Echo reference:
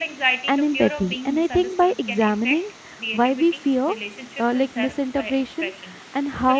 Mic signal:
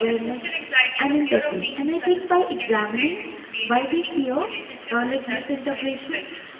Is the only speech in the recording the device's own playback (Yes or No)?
Yes